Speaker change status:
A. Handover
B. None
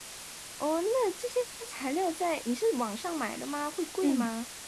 A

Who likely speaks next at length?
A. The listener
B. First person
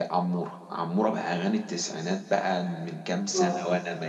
B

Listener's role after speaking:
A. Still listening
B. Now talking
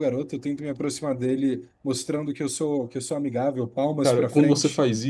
B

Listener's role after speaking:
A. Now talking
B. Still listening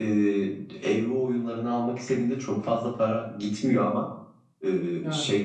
B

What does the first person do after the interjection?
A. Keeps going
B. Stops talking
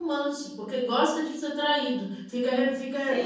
A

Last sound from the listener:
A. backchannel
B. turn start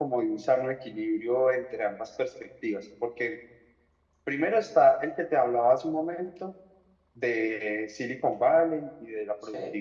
A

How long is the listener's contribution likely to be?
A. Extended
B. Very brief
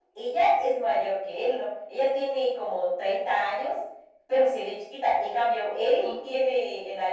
B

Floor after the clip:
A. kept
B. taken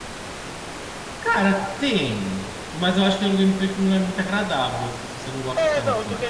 B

